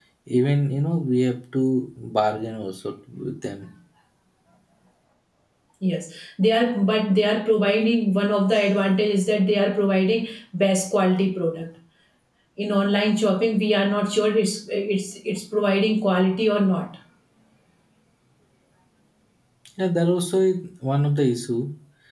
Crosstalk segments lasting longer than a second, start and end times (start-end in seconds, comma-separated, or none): none